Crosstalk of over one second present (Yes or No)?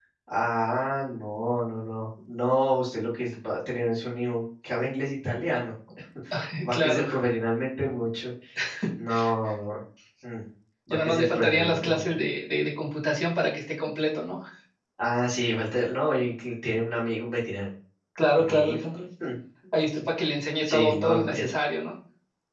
Yes